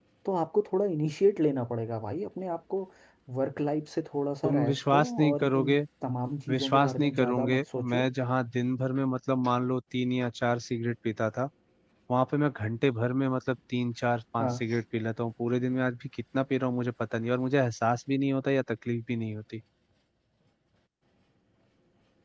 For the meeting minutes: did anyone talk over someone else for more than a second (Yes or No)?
Yes